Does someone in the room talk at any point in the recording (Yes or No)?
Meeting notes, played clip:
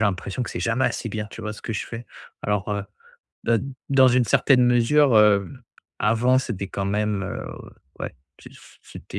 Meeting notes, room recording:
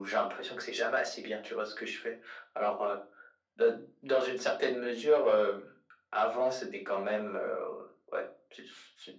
No